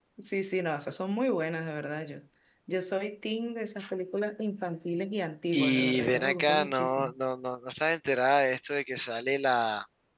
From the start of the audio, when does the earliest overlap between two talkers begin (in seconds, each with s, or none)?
5.5 s